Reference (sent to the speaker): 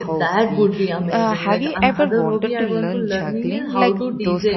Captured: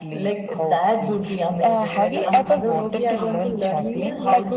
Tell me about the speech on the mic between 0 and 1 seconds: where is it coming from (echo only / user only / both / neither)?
echo only